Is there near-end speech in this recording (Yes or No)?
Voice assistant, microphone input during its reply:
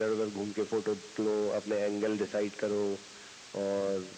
No